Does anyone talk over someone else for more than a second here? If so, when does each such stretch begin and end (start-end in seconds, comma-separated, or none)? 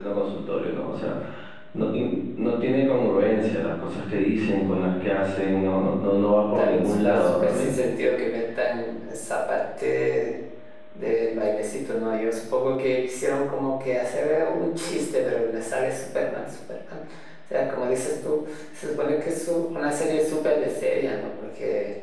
6.6-7.8